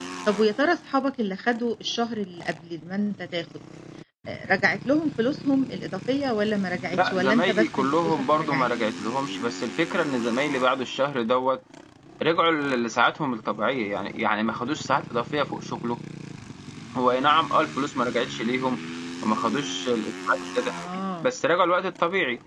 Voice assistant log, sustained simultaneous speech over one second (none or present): present